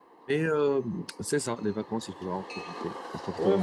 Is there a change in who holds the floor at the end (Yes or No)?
Yes